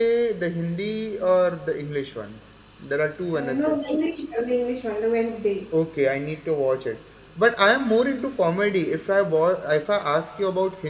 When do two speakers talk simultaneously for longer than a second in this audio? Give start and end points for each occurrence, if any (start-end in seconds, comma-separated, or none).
none